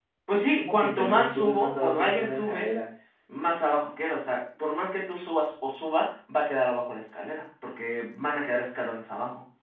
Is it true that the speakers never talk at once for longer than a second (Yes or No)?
No